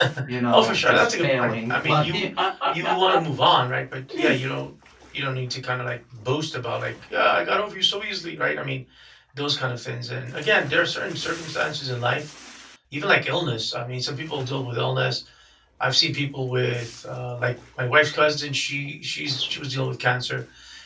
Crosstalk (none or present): present